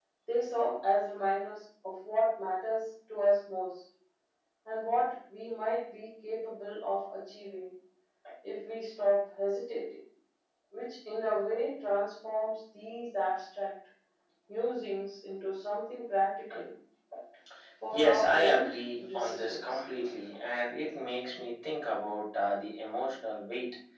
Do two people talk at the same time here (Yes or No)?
Yes